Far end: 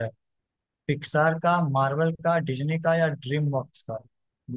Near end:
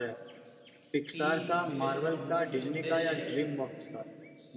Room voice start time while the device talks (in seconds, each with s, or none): 1.1 s